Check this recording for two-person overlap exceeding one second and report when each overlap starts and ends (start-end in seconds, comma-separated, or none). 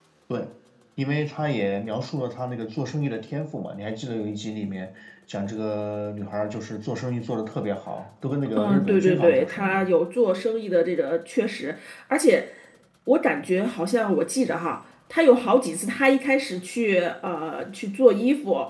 8.6-9.8